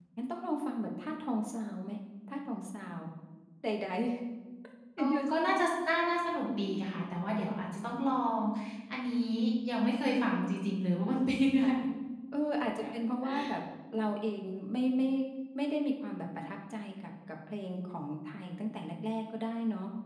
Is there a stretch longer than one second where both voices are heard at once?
No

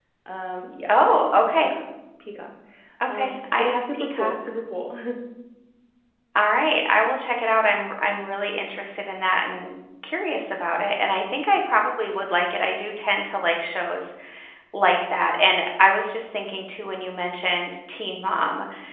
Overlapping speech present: Yes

